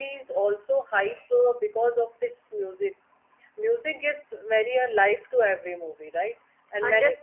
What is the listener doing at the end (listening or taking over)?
taking over